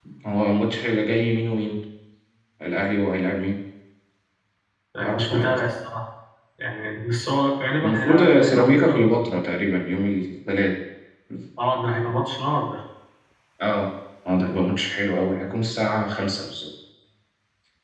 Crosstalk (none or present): present